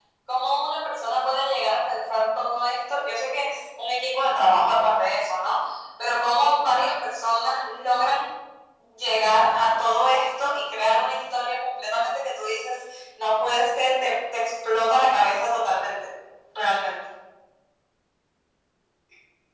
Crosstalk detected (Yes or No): No